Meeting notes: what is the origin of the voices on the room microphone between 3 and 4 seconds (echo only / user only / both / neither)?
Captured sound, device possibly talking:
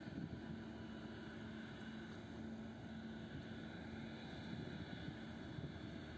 neither